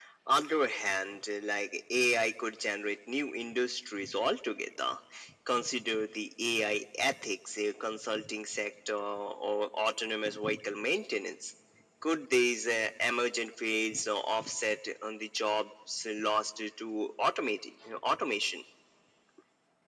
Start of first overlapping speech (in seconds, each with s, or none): none